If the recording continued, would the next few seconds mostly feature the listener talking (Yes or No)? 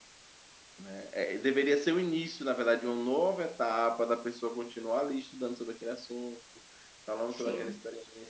No